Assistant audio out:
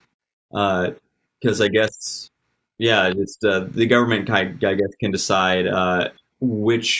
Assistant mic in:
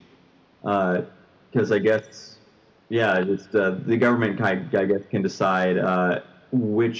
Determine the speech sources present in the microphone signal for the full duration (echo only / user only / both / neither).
echo only